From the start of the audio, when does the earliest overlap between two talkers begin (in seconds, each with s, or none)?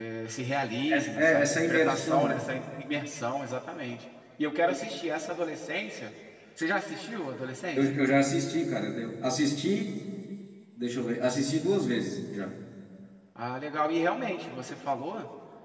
0.9 s